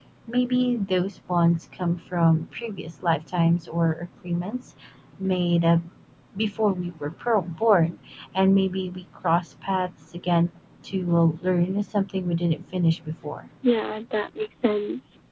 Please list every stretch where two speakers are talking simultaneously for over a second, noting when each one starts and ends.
none

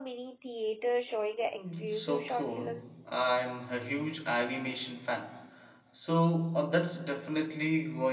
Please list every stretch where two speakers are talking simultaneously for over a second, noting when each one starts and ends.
1.5-3.1

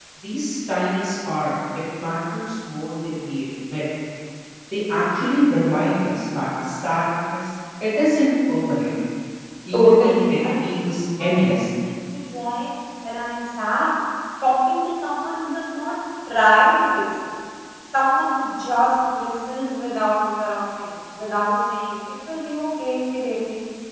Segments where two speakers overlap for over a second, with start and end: 9.7-11.6

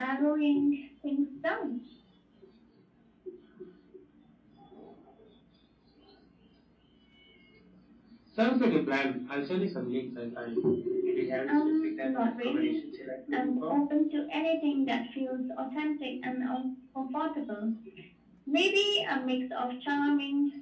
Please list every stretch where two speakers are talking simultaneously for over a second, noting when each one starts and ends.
11.5-12.8

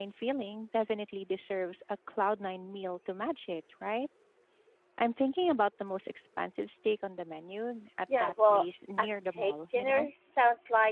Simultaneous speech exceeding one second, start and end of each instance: 8.2-10.1

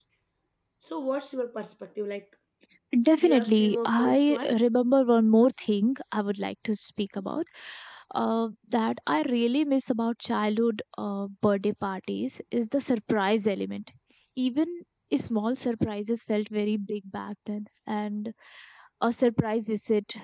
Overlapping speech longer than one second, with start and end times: 3.2-4.5

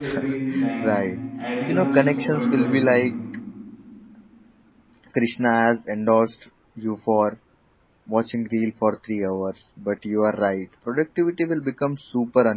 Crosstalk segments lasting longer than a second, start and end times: 1.7-3.0

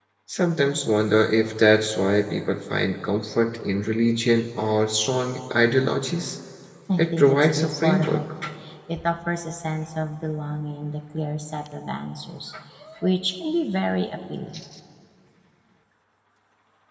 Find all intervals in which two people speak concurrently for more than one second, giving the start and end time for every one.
7.0-8.2

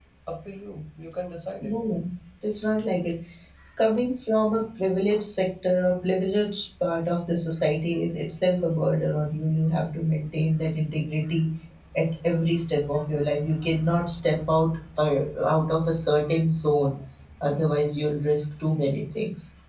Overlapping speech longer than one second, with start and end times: none

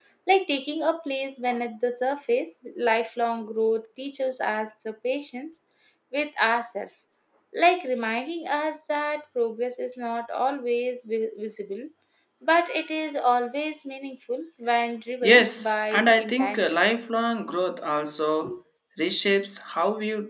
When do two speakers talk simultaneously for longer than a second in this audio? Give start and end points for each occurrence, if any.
15.2-16.8

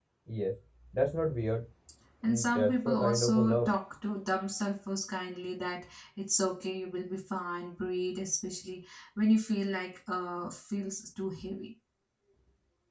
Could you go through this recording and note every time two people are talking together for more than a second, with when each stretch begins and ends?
2.2-3.7

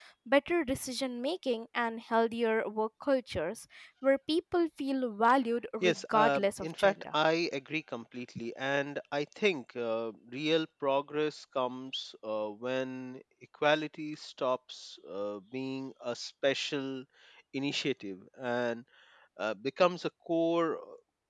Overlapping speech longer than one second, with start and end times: 5.8-7.2

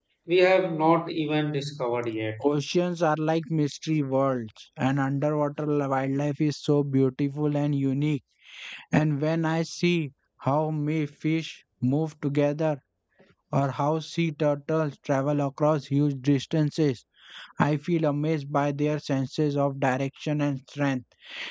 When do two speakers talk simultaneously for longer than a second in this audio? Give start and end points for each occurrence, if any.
none

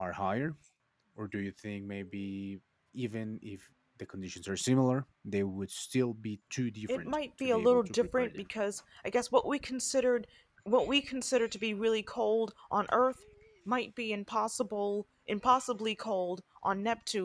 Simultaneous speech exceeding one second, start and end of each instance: 6.9-8.3

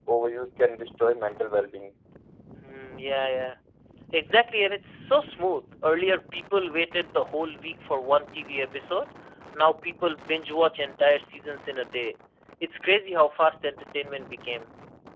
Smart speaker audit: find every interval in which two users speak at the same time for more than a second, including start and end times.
none

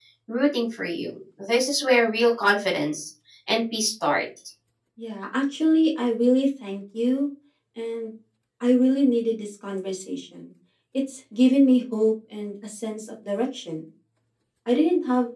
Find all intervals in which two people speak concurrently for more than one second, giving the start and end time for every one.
none

